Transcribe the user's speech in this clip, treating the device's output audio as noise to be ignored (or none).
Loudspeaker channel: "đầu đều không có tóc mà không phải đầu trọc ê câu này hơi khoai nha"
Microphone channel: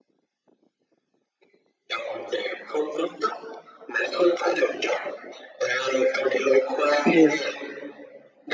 Điều